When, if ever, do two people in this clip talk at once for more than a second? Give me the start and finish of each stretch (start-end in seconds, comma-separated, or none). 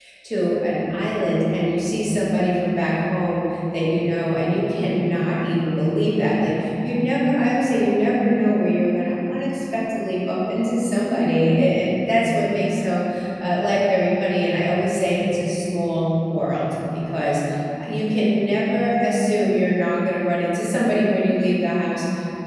none